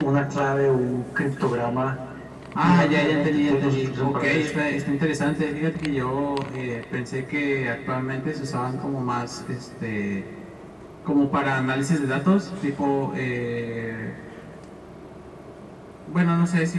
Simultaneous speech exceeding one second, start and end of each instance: 2.6-4.6

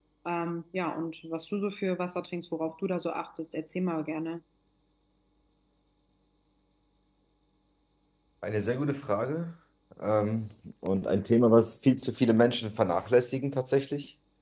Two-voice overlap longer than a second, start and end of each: none

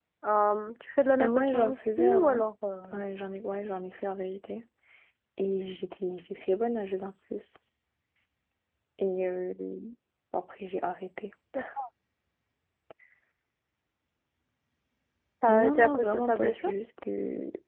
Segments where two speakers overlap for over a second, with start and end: 1.2-2.4, 15.5-16.7

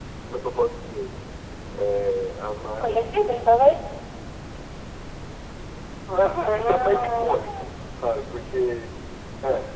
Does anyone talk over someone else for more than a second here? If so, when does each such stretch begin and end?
6.4-7.7

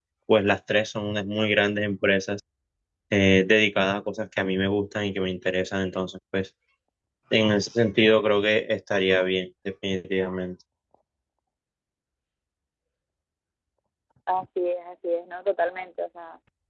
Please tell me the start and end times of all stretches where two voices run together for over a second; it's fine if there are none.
none

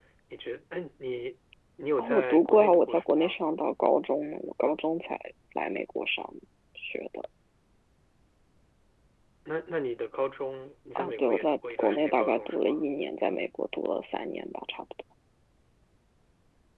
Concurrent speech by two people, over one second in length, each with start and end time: 2.0-3.4, 10.9-12.8

